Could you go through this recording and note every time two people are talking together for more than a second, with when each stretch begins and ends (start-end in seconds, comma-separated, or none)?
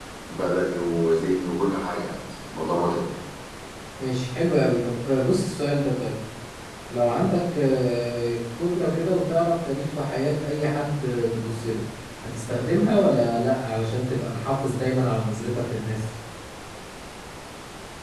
none